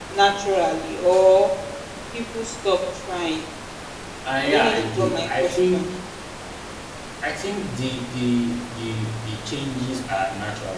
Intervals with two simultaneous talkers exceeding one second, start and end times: 4.4-5.9

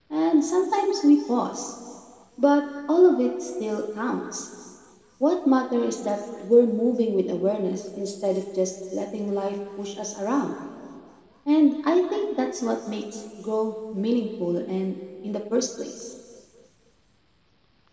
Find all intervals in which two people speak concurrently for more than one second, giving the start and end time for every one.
none

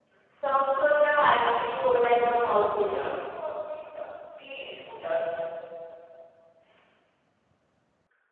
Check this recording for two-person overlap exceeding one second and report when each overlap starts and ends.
1.9-3.1

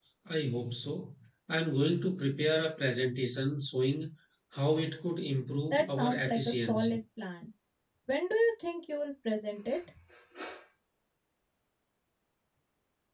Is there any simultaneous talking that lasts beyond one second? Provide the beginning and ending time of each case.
5.7-7.0

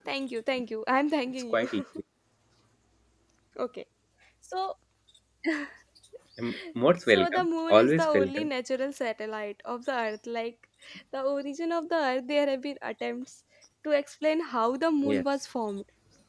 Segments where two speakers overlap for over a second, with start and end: 7.1-8.5

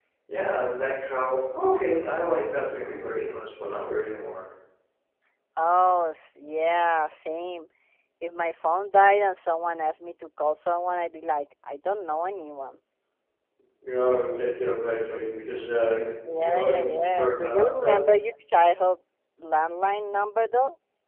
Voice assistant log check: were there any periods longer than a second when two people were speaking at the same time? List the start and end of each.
16.3-18.0

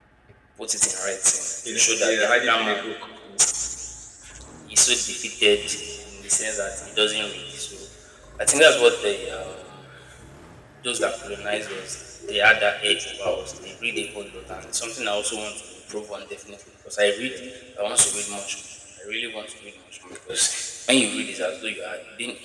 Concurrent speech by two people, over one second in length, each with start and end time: 1.7-2.9

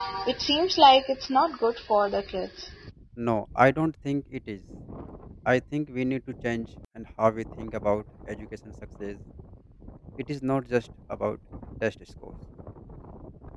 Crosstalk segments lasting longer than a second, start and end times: none

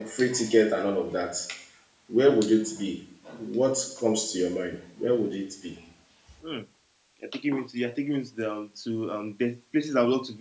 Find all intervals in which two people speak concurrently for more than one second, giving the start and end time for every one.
none

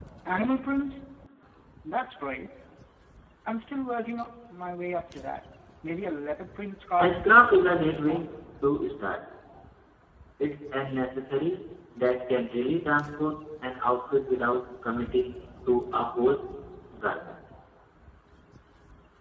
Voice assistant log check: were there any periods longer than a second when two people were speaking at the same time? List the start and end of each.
7.0-8.3

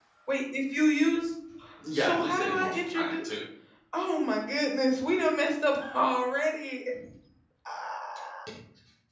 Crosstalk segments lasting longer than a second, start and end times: 1.9-3.1

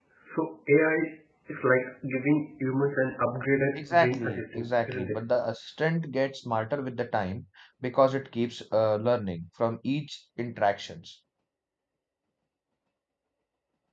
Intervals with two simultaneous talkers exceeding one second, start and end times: 3.8-5.2

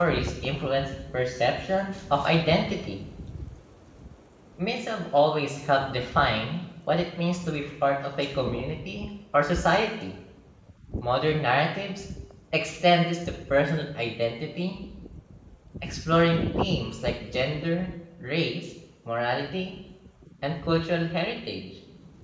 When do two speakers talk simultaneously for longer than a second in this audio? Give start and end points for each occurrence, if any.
none

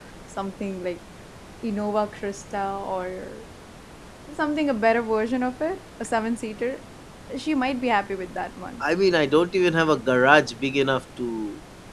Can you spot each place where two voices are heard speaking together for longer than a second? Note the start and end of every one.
none

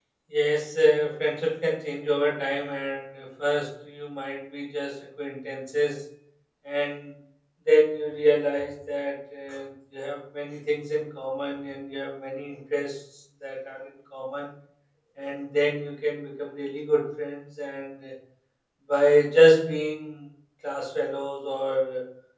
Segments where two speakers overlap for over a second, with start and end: none

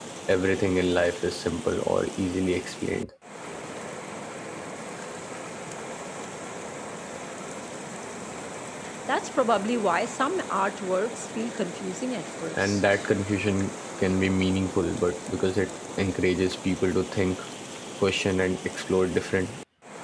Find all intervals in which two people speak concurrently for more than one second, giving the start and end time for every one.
none

